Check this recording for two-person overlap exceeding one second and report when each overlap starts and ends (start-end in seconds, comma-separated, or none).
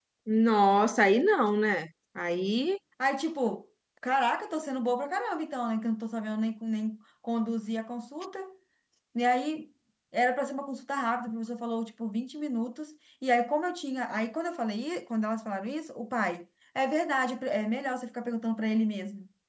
none